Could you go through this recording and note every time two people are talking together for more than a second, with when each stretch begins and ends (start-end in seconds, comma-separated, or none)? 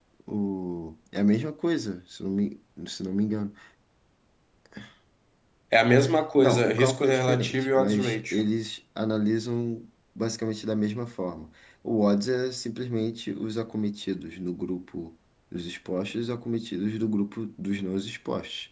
6.4-8.5